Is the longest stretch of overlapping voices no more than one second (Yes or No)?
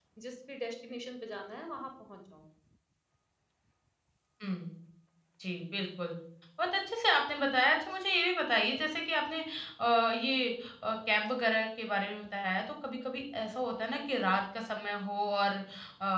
Yes